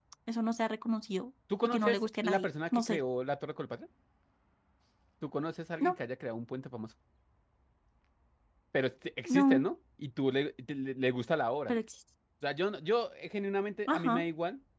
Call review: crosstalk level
present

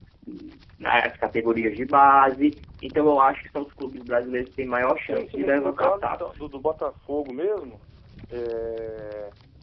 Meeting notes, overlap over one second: present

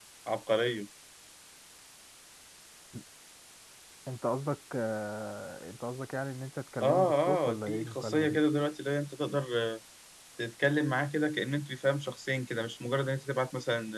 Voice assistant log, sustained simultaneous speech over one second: present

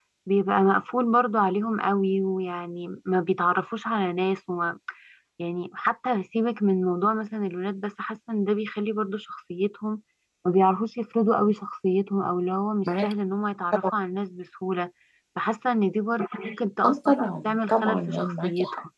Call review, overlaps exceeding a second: present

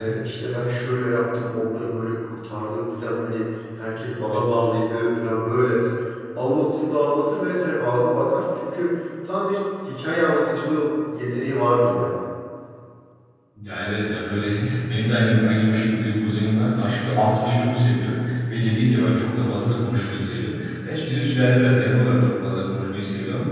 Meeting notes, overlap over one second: none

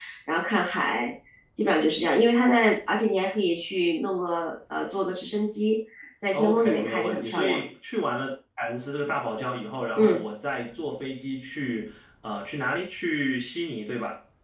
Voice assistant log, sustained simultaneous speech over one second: present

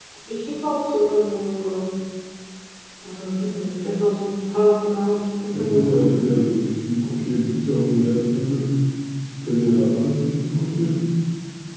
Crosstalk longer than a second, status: none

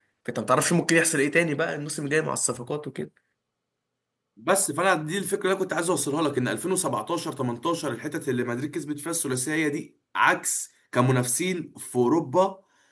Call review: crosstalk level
none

